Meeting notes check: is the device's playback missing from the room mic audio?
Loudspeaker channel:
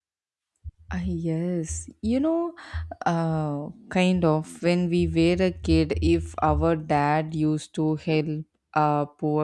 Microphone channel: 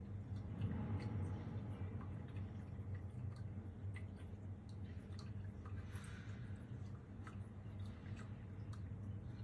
Yes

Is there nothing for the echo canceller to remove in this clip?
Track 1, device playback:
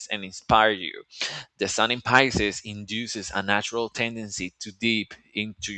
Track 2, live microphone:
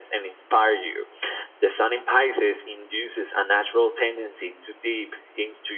No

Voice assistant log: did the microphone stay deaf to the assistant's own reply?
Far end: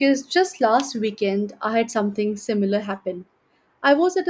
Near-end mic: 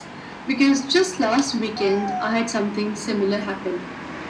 No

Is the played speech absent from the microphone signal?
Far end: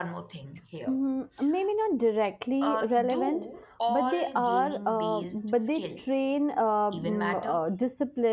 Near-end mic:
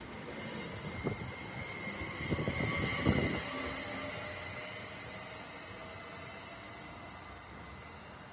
Yes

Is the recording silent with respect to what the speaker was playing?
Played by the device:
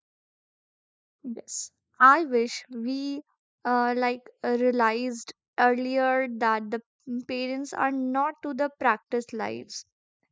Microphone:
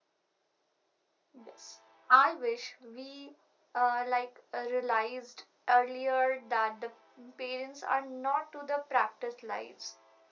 No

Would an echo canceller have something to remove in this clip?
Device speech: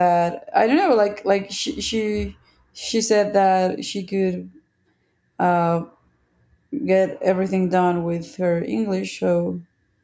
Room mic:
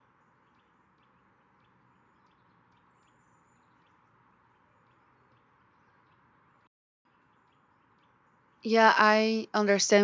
No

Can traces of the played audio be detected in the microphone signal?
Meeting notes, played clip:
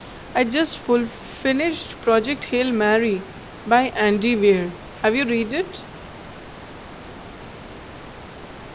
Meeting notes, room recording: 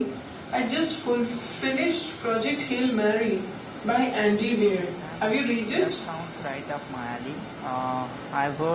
Yes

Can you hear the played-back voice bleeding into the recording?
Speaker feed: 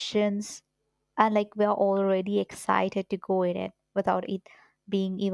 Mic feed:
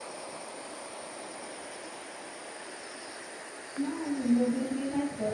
No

